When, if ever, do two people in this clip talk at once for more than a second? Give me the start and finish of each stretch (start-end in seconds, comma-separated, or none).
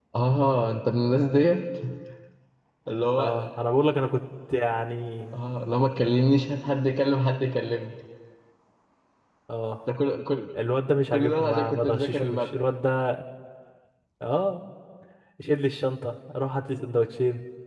11.1-12.5